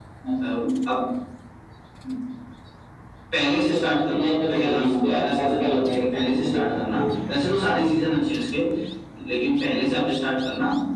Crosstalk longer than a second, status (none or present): present